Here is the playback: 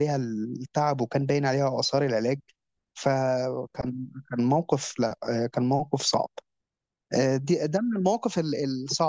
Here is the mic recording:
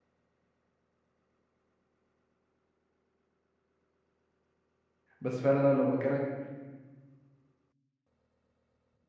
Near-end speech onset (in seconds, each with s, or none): 5.2 s